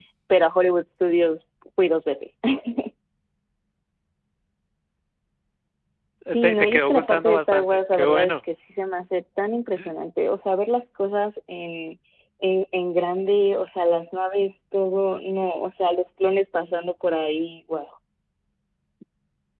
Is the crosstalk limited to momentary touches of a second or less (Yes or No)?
No